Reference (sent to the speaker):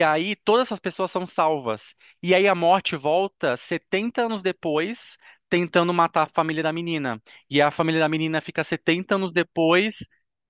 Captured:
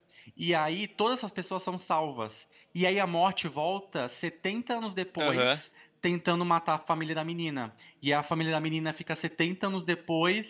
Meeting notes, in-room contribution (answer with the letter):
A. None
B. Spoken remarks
B